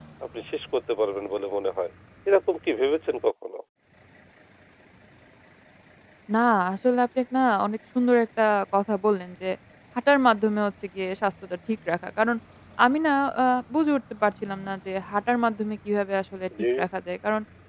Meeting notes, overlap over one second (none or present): none